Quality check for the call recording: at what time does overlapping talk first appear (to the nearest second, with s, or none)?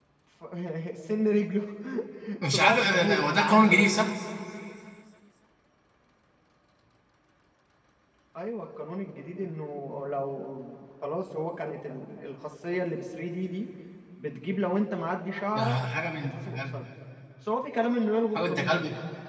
3 s